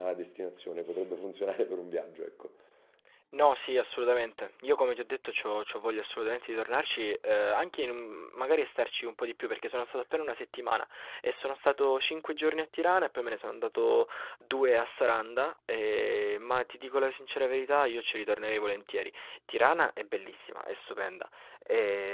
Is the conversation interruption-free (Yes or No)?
Yes